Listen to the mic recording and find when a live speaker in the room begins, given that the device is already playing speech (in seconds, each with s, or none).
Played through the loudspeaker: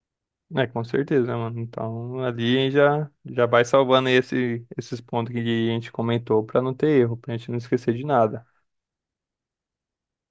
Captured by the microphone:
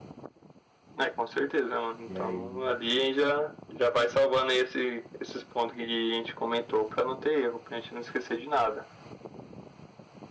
2.0 s